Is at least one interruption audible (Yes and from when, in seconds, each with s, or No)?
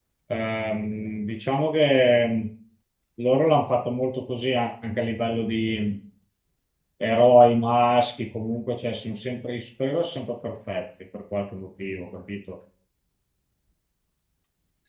No